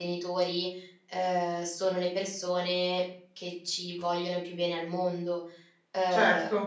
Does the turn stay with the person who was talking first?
Yes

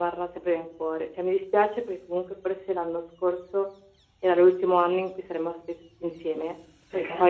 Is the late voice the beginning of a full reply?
No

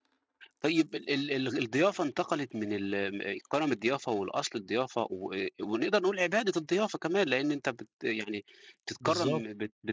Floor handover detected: No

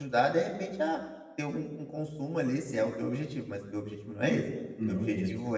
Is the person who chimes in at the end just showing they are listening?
Yes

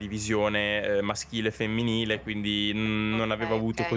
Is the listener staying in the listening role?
Yes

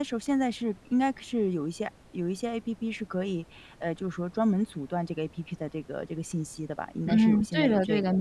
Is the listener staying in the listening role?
No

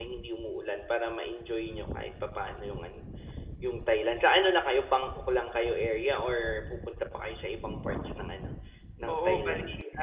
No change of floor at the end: No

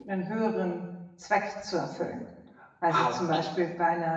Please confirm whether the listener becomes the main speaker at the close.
No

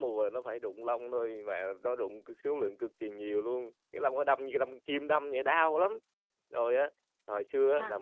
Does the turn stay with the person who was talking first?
Yes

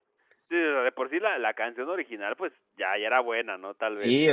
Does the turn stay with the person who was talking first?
No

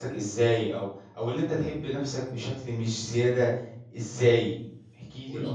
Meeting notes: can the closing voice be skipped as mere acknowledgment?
No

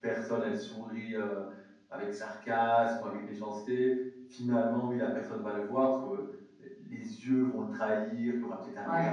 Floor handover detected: Yes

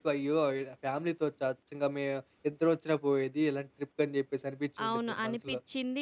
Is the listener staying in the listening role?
No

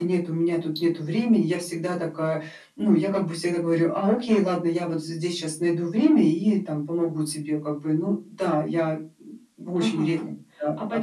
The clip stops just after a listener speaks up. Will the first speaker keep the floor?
No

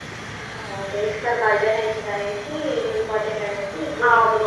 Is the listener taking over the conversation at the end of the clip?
Yes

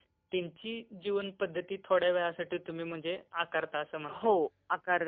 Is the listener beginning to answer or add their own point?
Yes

